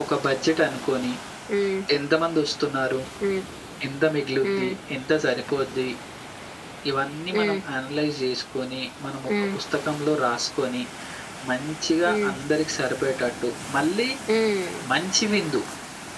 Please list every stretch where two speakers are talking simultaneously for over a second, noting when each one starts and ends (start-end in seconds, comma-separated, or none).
none